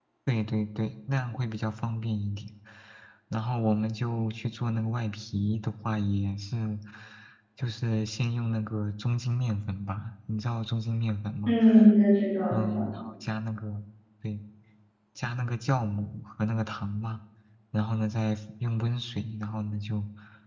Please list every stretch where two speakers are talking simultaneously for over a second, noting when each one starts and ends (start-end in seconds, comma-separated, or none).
none